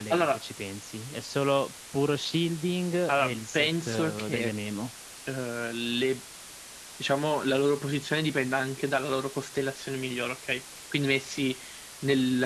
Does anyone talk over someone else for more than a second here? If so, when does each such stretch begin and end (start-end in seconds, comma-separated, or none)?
3.1-4.5